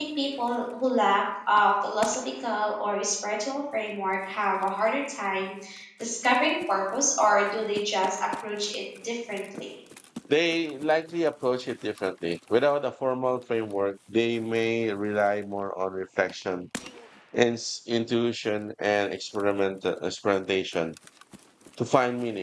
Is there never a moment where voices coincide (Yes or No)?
Yes